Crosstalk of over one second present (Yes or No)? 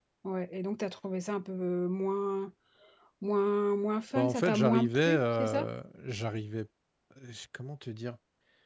Yes